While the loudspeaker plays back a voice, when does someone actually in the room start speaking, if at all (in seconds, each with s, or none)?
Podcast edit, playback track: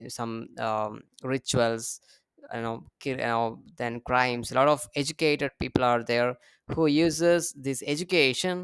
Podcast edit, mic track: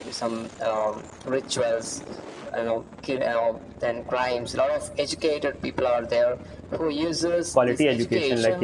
7.5 s